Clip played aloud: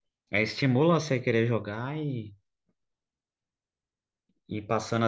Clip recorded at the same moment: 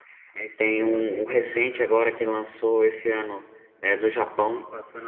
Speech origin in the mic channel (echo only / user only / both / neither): both